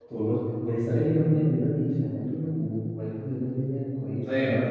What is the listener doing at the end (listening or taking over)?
taking over